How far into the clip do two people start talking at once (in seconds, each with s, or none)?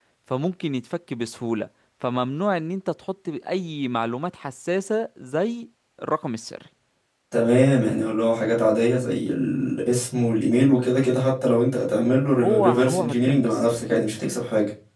12.4 s